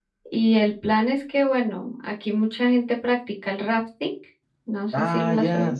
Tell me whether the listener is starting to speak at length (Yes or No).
Yes